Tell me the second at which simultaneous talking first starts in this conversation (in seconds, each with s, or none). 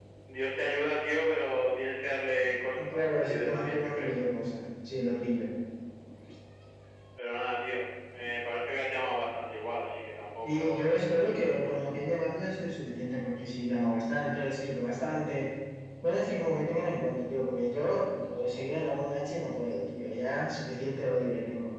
2.9 s